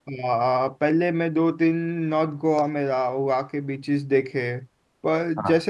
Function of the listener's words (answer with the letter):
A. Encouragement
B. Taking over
A